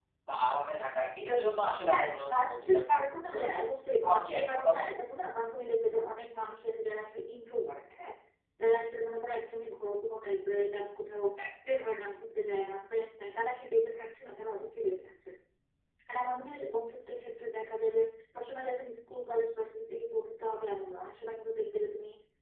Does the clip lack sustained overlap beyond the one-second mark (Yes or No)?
No